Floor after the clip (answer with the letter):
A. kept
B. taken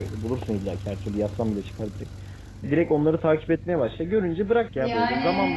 A